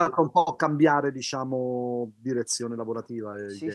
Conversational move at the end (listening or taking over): taking over